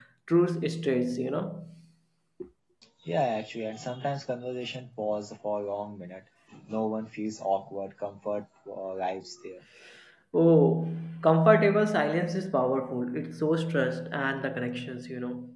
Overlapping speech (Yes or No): No